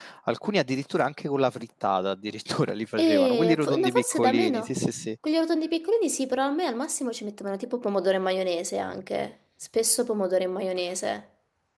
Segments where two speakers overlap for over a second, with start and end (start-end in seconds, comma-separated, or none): 3.1-4.7